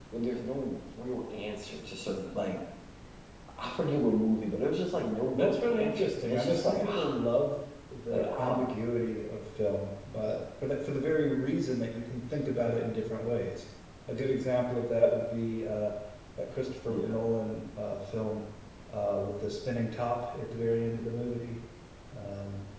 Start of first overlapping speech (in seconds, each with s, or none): 5.3 s